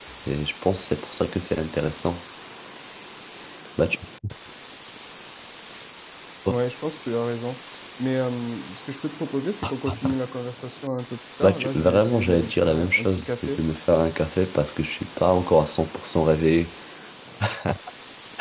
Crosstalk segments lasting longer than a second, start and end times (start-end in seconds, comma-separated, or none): 11.4-13.6